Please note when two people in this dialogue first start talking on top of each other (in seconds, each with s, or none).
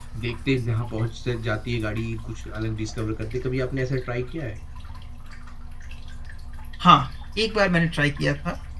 none